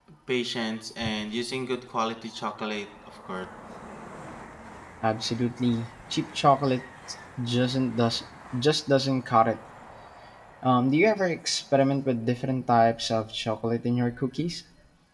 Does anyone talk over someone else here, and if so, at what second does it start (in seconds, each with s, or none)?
none